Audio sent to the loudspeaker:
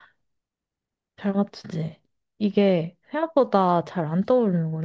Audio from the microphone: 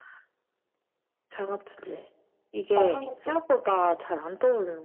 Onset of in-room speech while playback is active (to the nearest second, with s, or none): 3 s